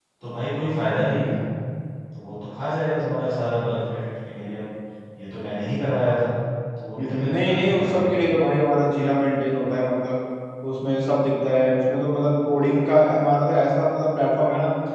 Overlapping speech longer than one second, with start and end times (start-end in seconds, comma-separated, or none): 7.0-8.2